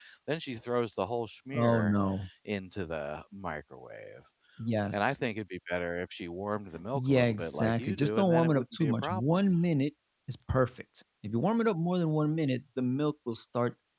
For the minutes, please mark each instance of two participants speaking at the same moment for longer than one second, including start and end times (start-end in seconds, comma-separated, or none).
6.9-9.4